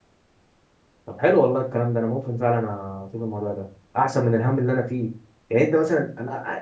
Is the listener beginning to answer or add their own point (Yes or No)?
No